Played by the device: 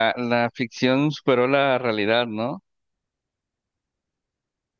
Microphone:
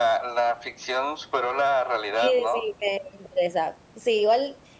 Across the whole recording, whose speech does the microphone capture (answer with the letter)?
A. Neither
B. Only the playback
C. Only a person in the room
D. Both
D